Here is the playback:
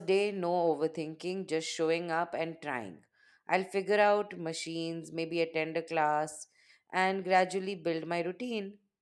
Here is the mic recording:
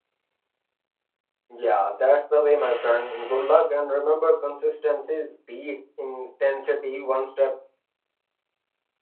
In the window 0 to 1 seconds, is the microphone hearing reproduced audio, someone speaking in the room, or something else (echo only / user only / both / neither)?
neither